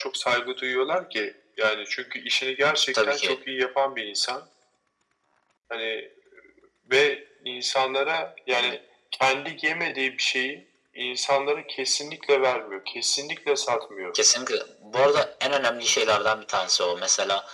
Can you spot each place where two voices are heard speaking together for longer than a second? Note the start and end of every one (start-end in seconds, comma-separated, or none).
none